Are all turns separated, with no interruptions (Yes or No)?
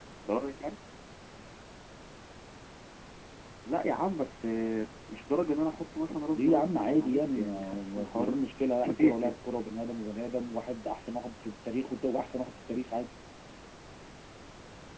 No